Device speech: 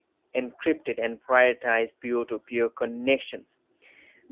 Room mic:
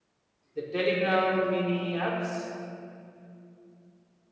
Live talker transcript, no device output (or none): the Telegram mini apps?